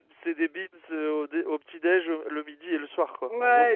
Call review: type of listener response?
taking over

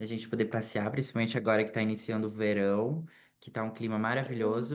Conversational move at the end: listening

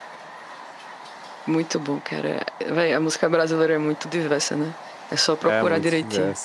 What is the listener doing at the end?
taking over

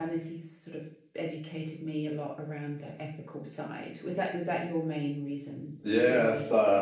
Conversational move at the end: taking over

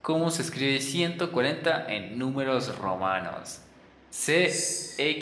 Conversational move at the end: listening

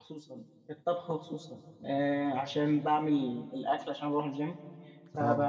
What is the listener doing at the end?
listening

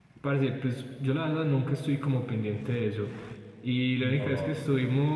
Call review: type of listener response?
listening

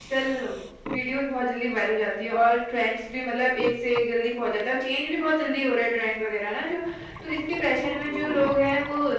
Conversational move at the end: listening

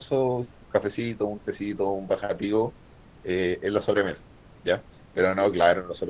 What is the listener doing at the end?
listening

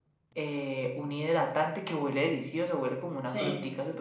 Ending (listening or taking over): listening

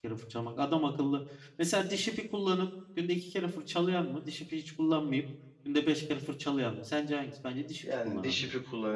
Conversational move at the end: taking over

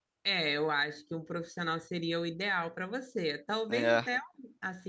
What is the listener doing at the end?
listening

